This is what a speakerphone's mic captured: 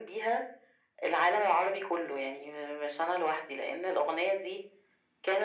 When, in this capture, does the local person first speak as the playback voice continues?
none

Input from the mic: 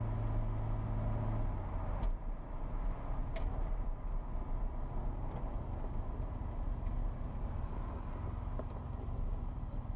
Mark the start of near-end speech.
none

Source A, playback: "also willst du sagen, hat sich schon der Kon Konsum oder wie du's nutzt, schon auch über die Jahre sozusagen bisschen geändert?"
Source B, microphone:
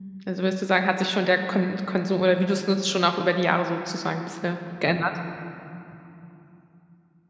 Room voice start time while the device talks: none

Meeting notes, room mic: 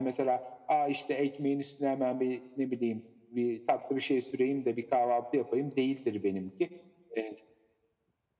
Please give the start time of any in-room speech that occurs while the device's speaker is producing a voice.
none

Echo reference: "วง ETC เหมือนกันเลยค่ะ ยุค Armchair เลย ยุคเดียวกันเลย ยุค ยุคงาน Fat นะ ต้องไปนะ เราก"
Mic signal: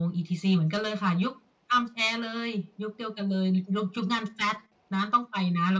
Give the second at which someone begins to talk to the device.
none

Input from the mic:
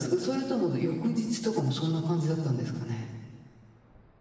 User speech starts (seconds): none

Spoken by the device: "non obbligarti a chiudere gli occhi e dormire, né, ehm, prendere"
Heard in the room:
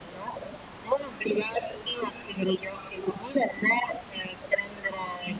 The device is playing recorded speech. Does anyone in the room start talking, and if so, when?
none

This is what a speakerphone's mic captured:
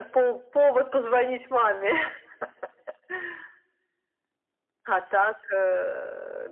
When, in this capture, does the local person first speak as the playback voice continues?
none

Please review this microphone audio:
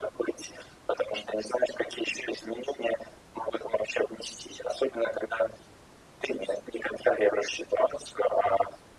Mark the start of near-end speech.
none

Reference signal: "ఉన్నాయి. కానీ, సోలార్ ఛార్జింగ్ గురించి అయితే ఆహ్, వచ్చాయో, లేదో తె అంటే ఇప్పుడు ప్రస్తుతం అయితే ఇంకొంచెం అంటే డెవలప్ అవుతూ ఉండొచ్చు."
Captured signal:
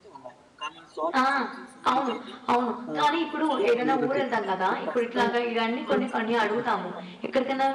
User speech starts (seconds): 1.1 s

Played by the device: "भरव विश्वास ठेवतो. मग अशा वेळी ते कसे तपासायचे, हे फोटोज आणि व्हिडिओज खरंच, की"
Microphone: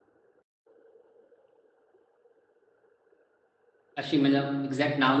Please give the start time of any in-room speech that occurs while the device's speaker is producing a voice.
4.0 s

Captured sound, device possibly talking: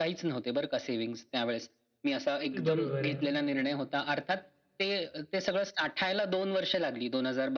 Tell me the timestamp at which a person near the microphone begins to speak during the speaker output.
2.5 s

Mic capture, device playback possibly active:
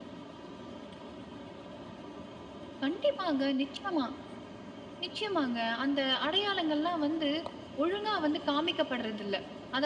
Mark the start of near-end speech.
none

